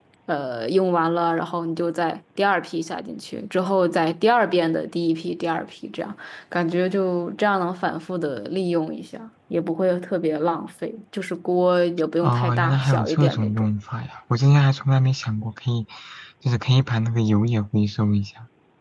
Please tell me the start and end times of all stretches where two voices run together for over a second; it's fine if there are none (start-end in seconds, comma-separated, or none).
12.2-13.7